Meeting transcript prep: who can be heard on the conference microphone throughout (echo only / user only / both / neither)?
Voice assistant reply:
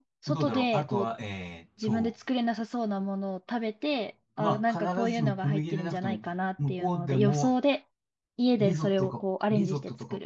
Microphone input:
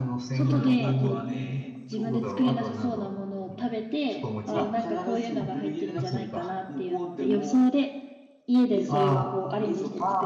both